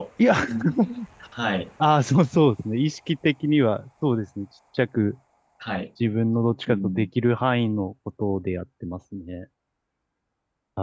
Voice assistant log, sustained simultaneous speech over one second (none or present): none